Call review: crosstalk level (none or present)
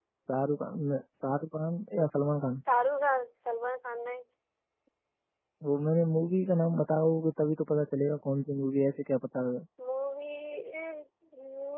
none